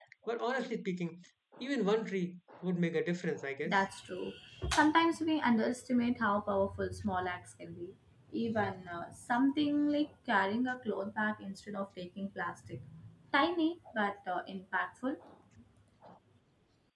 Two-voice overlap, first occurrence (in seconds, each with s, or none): none